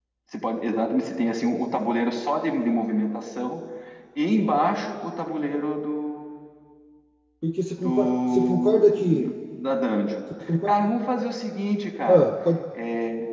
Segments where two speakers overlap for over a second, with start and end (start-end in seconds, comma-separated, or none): 7.8-9.3